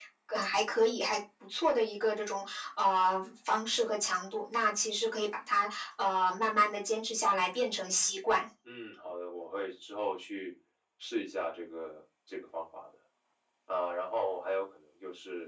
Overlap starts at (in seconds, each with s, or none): none